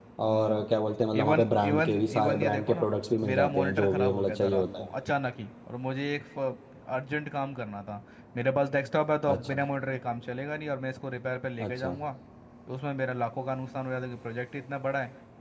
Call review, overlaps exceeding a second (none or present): present